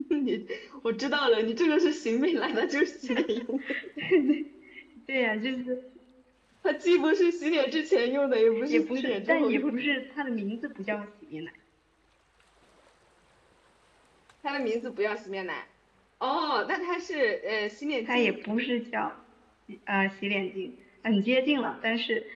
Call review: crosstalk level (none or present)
present